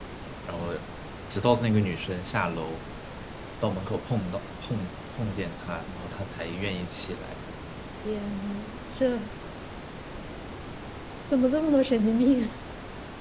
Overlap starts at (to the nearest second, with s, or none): none